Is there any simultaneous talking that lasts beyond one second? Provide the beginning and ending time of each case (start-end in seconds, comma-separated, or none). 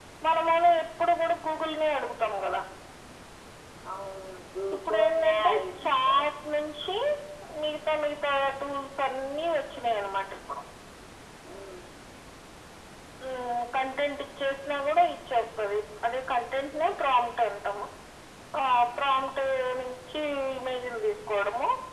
4.8-6.2